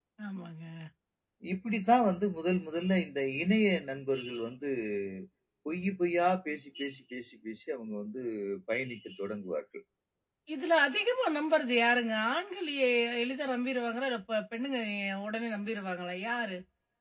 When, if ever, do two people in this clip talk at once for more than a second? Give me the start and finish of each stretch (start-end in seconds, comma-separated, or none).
none